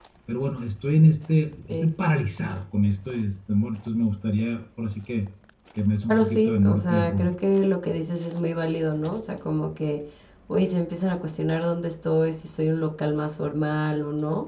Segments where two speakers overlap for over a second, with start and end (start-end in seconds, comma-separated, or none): 6.1-7.3